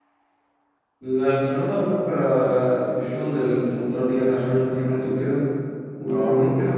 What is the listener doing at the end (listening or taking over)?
listening